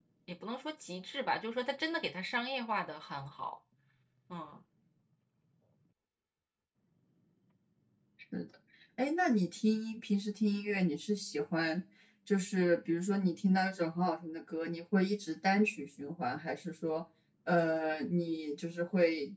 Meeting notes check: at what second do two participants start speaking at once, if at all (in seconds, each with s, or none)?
none